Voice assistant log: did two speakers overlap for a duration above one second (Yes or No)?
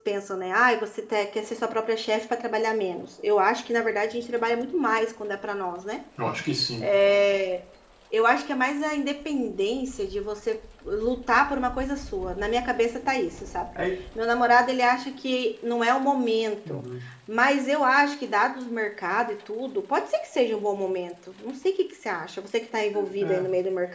No